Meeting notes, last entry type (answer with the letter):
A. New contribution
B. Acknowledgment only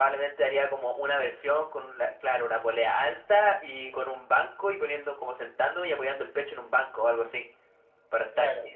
B